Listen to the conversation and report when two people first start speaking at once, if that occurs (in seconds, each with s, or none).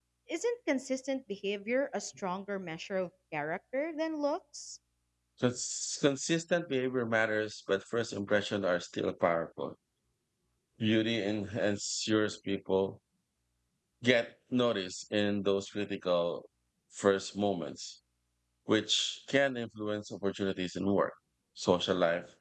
none